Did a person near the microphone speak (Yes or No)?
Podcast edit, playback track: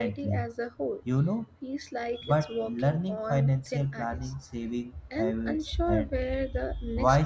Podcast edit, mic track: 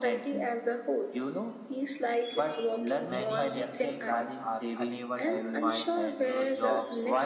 Yes